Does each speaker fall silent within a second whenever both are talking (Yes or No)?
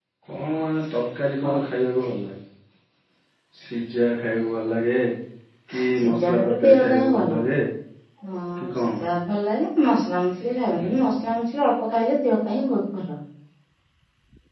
No